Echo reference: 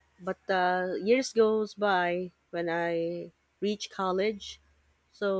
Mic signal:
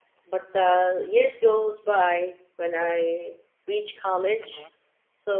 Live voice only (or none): Mhm.